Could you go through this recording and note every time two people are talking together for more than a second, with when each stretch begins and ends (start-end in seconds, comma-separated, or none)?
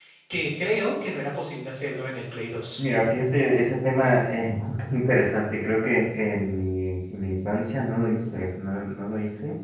none